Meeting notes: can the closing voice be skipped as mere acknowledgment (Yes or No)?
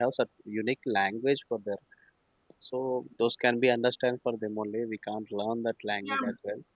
No